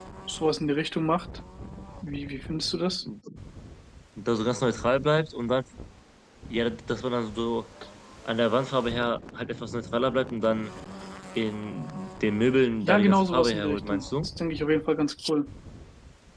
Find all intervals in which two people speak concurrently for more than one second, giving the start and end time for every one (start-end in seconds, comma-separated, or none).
12.8-14.0